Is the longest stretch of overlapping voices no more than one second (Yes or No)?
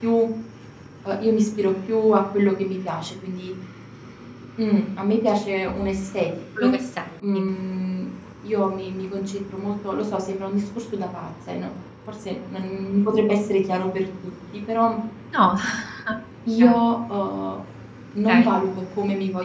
Yes